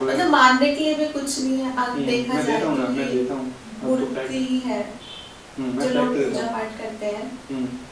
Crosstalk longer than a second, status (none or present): present